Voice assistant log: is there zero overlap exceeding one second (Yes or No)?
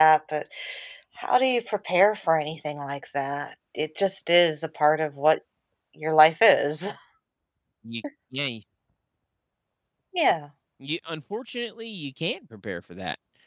Yes